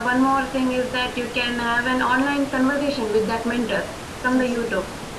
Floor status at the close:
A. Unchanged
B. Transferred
A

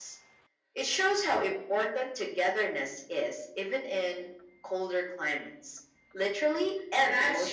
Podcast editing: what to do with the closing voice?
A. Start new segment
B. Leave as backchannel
A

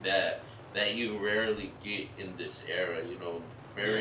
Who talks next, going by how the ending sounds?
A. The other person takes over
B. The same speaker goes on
A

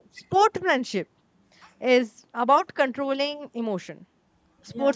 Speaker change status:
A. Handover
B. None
B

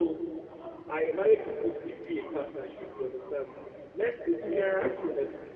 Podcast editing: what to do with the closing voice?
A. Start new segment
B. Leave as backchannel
B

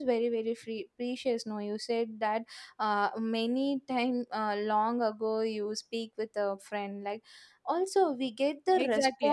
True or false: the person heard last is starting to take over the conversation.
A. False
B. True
B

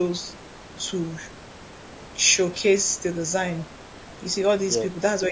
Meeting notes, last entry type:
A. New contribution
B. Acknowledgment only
B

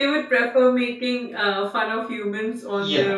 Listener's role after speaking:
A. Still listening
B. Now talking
B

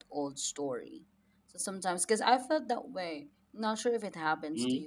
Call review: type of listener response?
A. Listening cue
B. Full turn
A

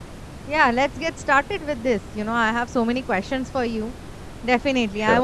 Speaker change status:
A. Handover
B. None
B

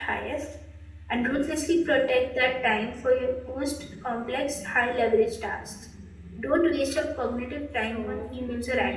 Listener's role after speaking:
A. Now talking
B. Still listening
A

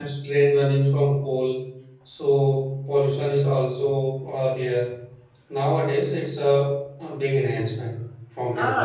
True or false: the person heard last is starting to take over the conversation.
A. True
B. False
A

